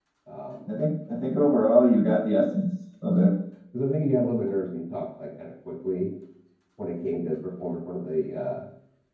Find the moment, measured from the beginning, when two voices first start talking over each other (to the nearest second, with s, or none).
none